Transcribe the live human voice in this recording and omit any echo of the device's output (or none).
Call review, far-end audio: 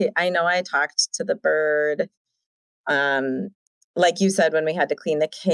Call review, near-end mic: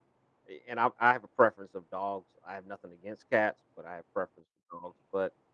a- And I, I have a preference of dogs. I have nothing against cats, but I have preference for dogs. But